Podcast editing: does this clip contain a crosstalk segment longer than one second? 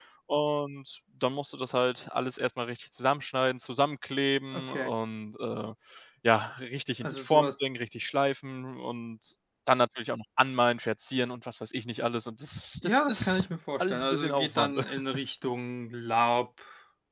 Yes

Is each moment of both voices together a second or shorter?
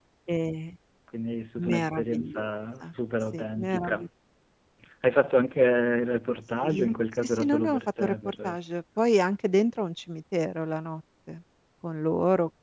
No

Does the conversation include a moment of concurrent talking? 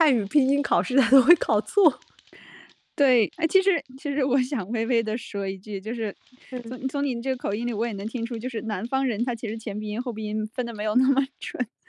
No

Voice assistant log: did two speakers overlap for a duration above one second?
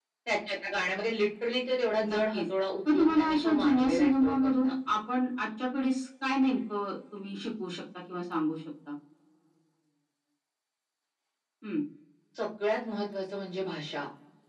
Yes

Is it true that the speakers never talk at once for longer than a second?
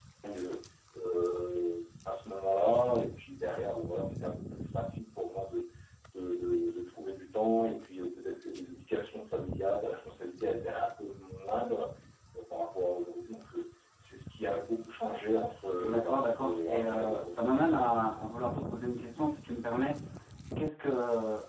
No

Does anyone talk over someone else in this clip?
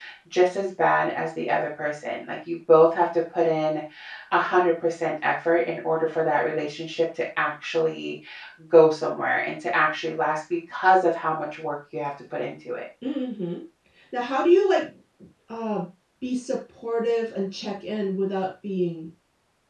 No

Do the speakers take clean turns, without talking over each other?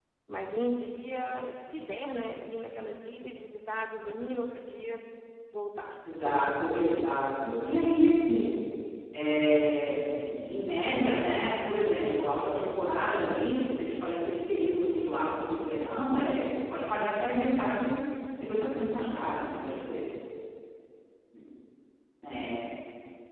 No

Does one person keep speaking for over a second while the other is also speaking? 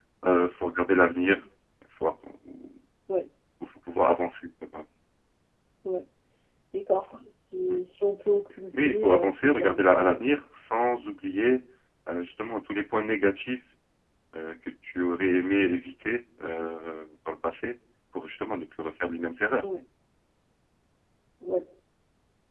Yes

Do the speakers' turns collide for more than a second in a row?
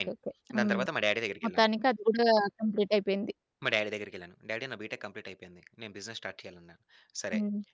No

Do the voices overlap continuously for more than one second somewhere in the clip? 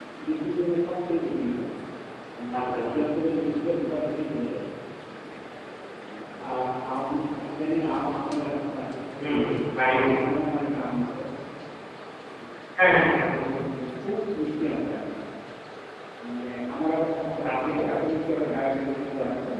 No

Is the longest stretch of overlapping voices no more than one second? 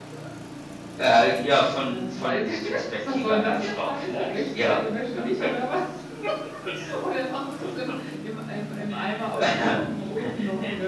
No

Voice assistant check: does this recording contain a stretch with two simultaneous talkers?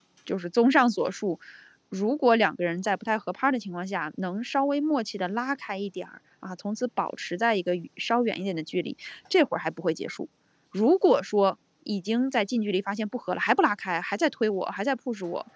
No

